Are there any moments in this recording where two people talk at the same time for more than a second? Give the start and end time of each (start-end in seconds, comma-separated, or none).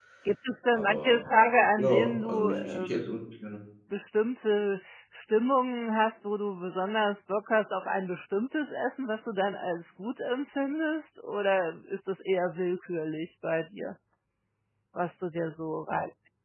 1.8-3.1